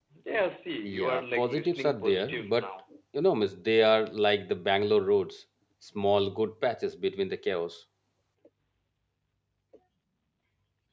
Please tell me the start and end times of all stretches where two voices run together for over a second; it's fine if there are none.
0.8-2.7

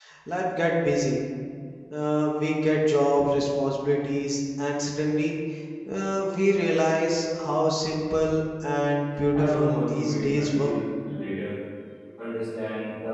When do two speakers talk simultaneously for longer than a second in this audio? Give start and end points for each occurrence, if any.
9.3-10.8

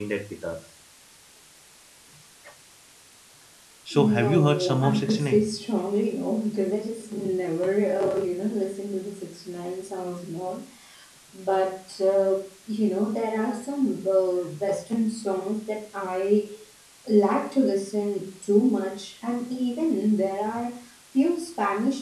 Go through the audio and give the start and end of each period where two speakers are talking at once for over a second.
4.0-5.4

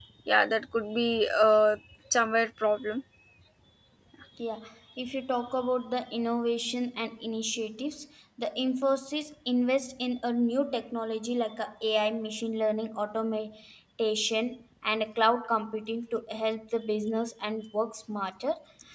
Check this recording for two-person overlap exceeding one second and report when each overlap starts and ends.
none

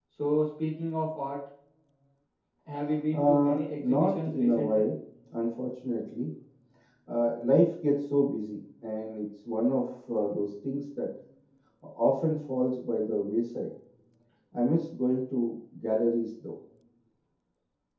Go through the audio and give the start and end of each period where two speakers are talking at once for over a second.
3.1-4.9

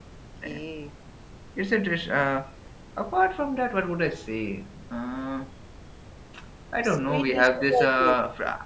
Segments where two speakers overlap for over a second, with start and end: 6.8-8.2

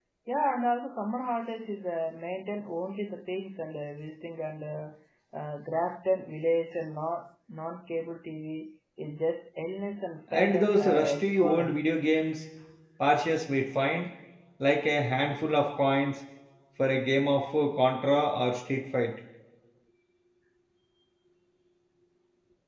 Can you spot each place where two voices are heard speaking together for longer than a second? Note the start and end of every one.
10.3-11.8

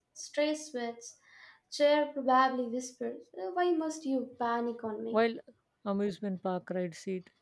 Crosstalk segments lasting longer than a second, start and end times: none

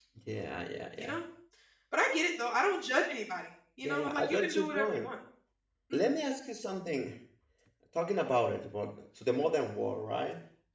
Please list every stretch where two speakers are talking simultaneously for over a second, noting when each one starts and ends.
3.8-5.1

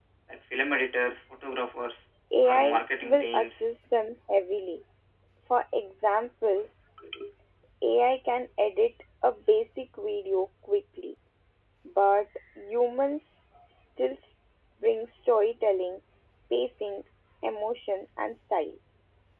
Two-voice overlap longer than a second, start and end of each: 2.4-3.7

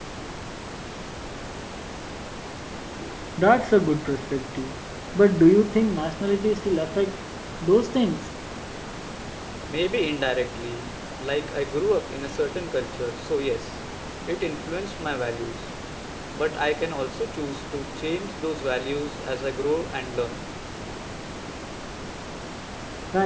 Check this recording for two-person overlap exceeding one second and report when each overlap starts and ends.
none

